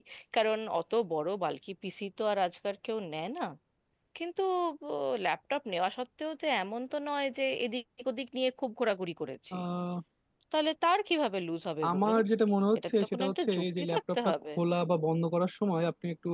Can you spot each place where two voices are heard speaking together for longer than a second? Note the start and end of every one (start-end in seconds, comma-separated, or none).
12.8-14.3